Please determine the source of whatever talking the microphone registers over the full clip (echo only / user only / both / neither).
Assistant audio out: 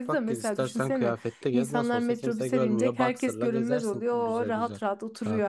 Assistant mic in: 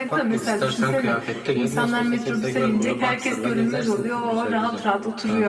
echo only